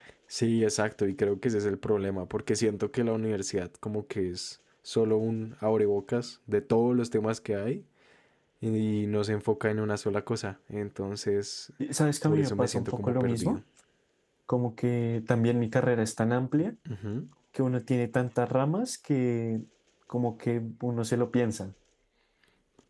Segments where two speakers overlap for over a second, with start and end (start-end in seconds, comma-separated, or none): 12.2-13.6